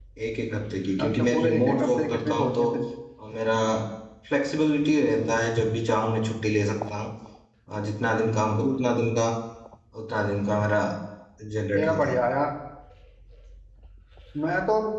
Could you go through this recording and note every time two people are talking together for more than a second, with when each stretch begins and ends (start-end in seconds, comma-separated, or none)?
1.0-2.7